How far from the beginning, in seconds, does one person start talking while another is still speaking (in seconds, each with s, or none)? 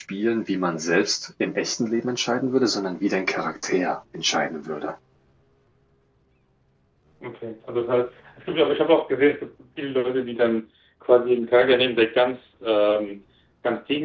none